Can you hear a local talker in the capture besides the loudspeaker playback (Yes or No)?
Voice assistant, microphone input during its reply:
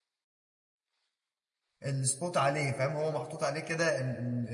Yes